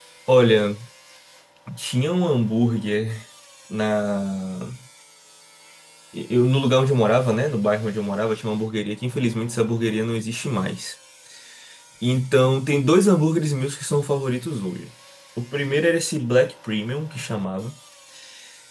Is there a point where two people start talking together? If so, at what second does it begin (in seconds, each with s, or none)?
none